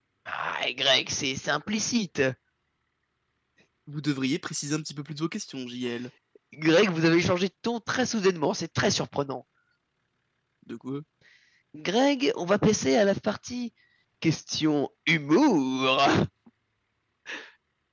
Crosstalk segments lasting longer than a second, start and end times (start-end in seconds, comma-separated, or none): none